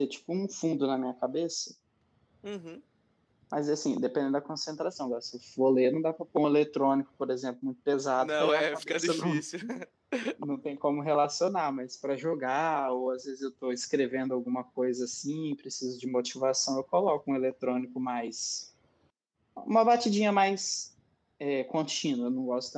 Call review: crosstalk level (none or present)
present